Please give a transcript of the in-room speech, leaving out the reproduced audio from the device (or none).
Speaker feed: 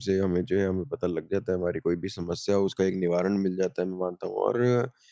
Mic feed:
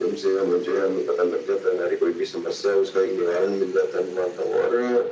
none